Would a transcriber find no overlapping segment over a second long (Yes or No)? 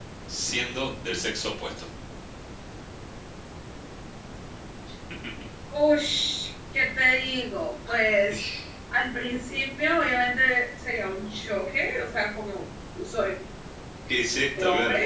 Yes